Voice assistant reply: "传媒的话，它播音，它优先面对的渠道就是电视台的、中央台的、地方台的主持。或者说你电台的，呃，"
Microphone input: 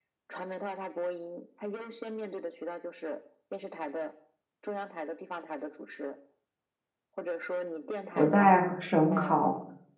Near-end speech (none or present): present